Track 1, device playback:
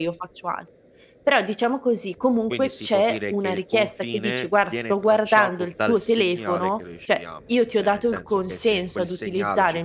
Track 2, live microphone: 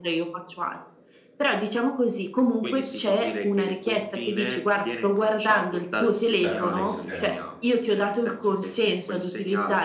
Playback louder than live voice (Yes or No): Yes